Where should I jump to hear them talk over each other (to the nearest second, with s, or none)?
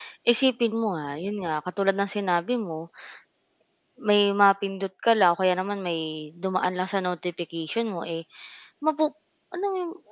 none